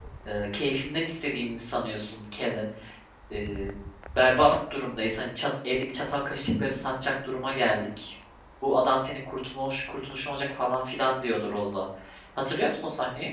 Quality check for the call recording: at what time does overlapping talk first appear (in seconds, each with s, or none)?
none